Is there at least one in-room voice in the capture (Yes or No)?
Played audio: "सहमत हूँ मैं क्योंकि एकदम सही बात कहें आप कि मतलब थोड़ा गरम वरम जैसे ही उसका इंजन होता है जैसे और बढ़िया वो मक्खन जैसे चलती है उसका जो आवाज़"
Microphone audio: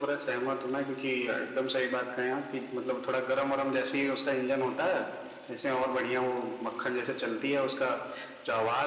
No